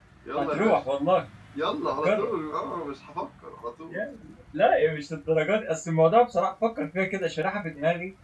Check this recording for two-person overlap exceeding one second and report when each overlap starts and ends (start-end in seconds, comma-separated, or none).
none